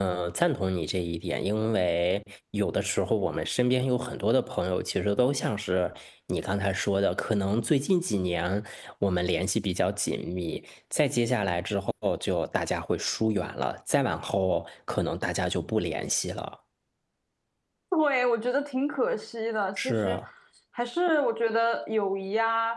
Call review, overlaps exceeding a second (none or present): none